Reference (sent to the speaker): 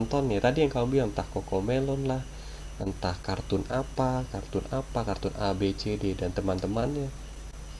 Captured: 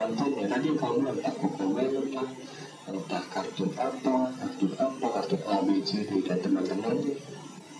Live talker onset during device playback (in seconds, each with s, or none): none